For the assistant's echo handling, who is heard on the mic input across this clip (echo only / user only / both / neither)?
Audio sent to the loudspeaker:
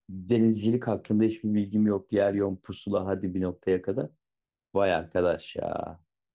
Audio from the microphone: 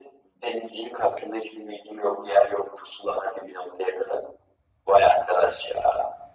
echo only